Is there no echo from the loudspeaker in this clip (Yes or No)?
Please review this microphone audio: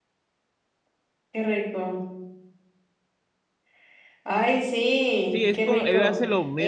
No